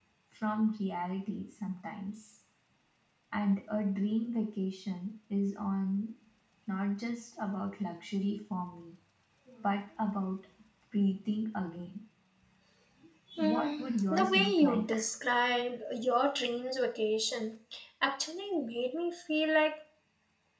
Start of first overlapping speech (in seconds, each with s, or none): 13.4 s